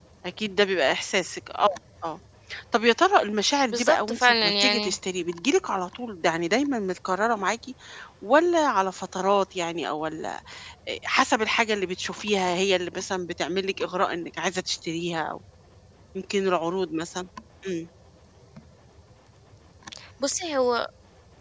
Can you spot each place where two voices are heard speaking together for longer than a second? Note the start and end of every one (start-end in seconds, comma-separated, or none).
3.7-4.9